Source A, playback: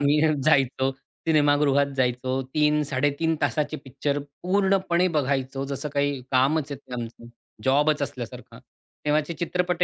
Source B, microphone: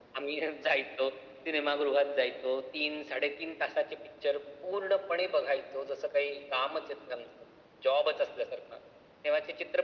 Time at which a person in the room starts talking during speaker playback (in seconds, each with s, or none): none